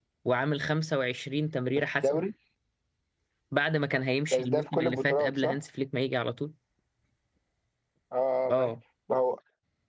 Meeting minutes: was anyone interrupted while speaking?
Yes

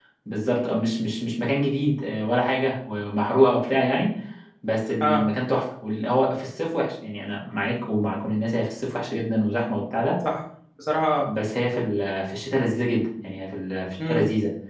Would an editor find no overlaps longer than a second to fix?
Yes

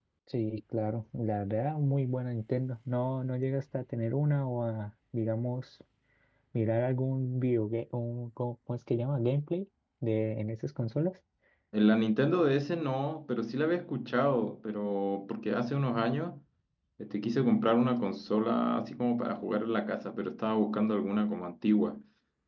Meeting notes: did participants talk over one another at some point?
No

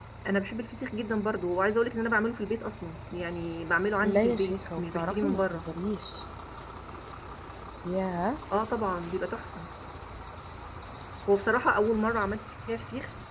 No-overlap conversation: No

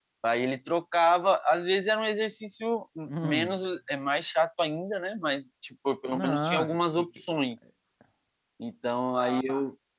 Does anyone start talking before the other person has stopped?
Yes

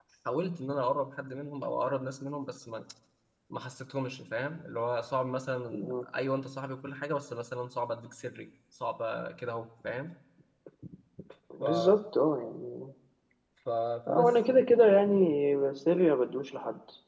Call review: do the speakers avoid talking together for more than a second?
Yes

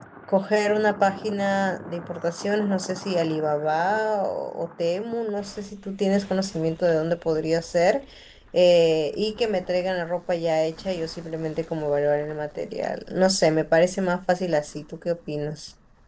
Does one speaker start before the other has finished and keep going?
No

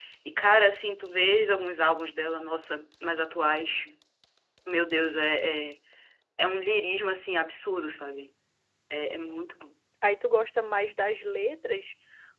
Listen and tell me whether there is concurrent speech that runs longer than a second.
No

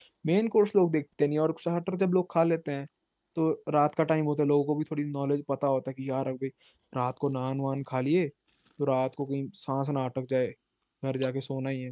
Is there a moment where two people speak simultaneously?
No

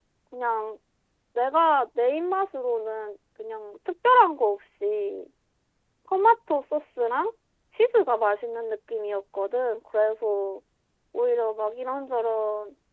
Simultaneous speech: No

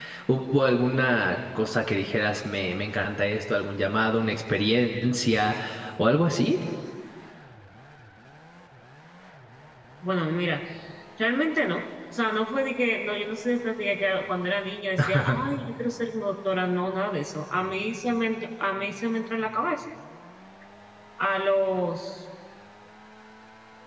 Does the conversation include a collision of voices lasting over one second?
No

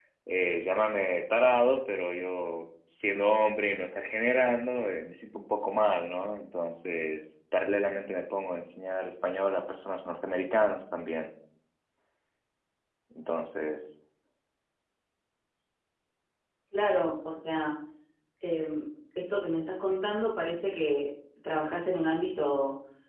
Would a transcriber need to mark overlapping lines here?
No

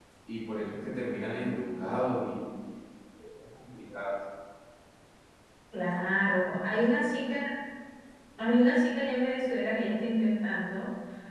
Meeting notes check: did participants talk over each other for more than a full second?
No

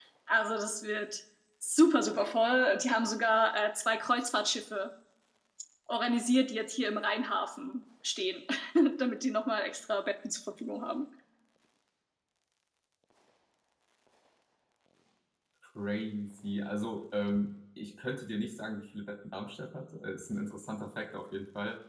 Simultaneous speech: No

